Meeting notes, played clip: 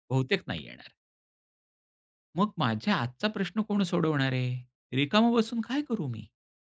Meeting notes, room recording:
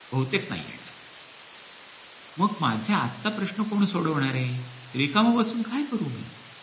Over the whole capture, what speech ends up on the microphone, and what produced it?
echo only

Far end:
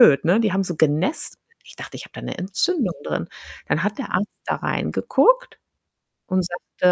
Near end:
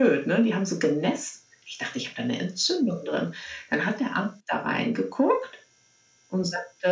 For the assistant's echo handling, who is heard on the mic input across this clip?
echo only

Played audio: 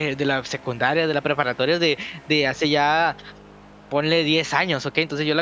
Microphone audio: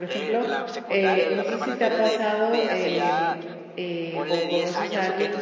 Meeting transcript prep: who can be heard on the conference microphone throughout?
both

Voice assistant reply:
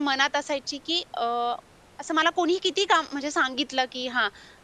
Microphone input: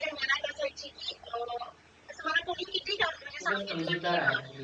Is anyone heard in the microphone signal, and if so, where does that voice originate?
both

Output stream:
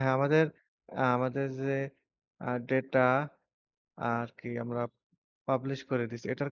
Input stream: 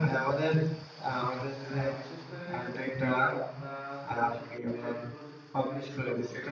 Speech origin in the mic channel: both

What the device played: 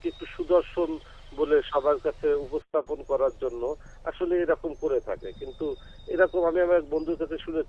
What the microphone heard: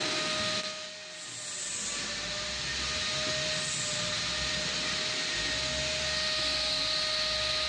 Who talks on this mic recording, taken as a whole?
neither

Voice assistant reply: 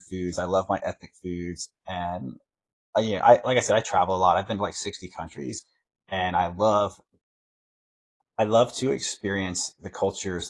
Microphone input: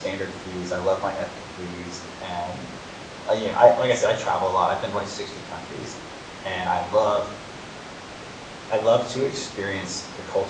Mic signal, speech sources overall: echo only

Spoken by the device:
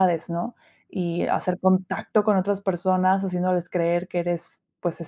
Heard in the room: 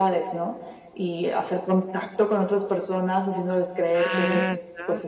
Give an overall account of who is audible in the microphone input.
both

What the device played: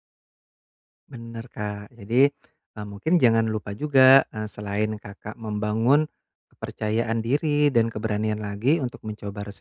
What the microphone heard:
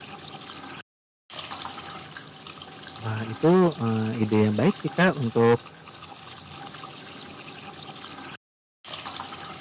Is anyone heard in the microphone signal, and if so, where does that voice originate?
user only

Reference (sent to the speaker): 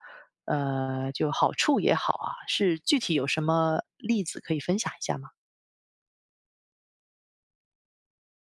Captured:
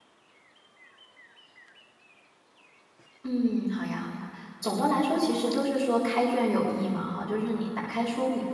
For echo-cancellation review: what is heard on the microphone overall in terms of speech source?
user only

